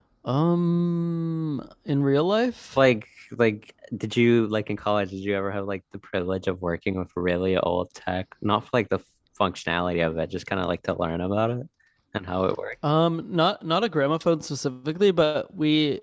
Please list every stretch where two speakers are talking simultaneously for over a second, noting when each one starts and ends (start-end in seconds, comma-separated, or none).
none